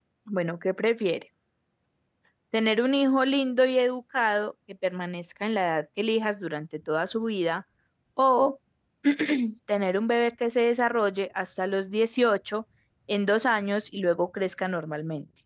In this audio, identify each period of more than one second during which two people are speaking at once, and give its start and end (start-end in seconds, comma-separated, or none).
none